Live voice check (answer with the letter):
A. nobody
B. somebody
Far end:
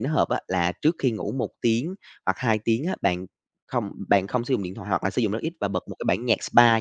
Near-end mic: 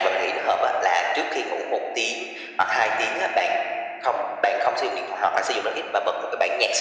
A